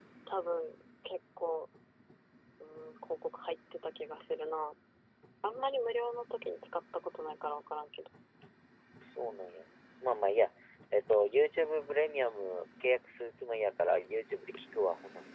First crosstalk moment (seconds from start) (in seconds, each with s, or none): none